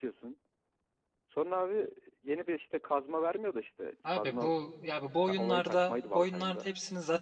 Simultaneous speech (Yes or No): Yes